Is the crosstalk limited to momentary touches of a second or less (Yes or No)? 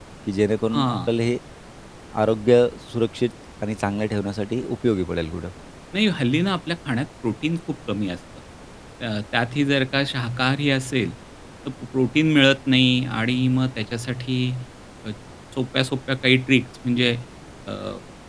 Yes